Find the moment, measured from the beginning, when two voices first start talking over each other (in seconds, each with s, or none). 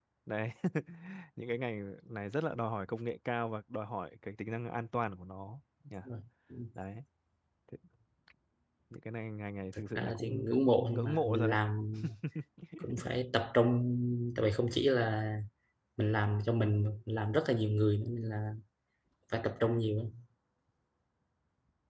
9.8 s